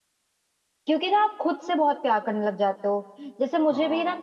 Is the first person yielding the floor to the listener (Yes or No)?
No